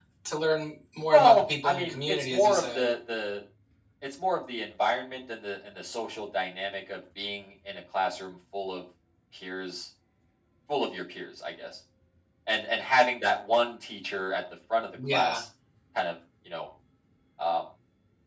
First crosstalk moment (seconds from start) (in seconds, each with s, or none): 1.1 s